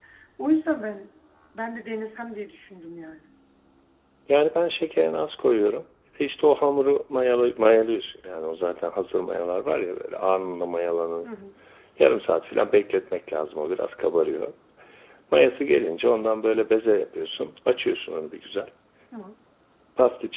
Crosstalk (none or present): none